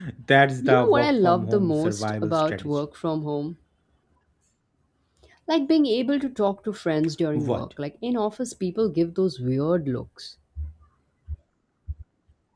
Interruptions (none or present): present